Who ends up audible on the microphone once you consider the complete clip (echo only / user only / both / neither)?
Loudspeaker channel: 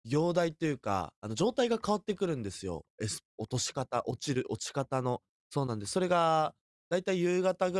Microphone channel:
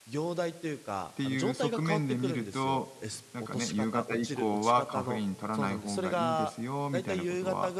both